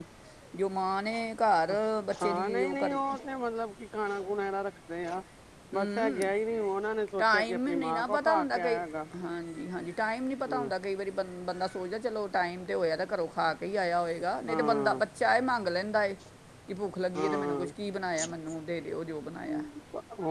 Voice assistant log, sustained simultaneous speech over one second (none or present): present